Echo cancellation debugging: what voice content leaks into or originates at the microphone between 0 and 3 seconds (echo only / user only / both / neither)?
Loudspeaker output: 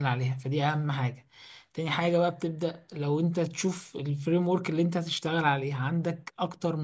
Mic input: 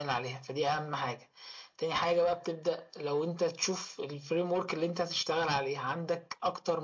echo only